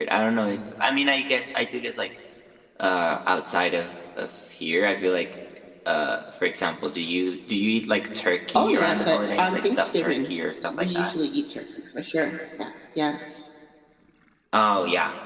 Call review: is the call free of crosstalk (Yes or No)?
No